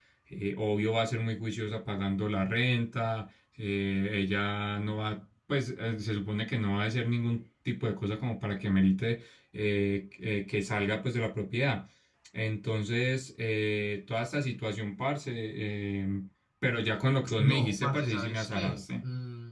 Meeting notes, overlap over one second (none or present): present